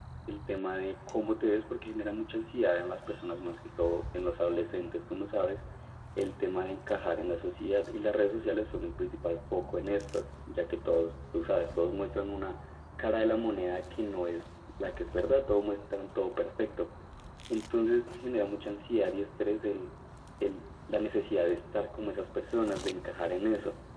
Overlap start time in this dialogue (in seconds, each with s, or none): none